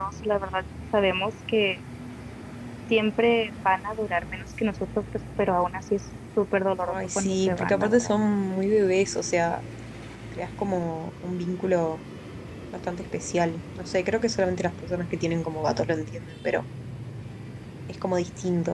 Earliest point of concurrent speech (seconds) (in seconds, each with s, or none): 6.9 s